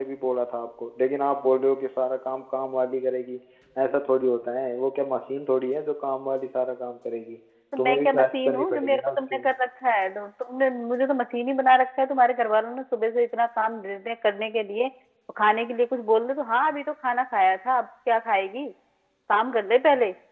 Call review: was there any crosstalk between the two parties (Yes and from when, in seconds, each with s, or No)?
Yes, from 7.7 s